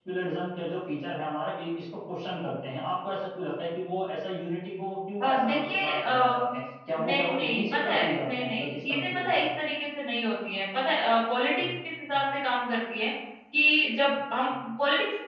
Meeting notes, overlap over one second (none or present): present